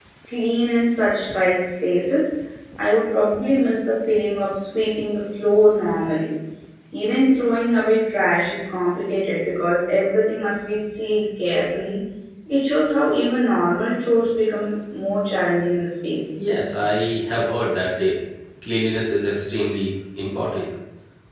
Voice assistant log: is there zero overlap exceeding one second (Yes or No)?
Yes